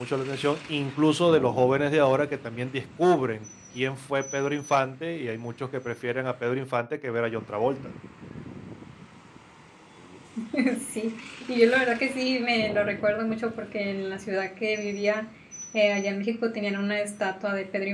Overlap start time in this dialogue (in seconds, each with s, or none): none